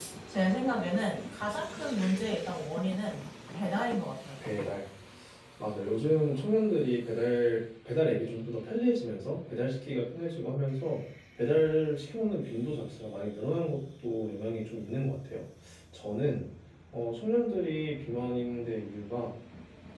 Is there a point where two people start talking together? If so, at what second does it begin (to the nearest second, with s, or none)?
none